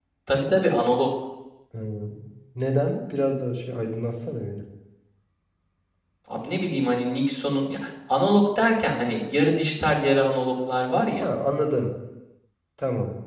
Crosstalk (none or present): none